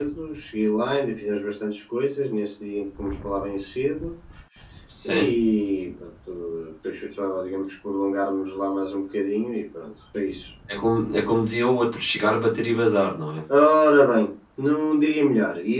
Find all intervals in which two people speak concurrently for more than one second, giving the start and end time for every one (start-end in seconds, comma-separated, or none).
none